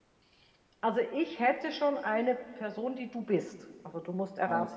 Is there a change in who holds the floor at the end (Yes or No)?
Yes